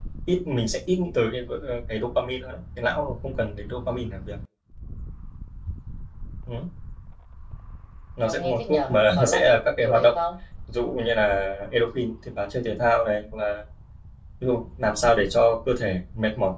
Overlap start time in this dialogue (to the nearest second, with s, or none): 8 s